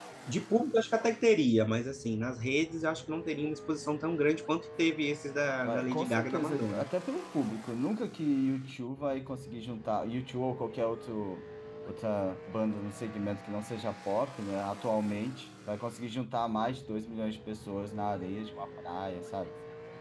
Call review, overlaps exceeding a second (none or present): present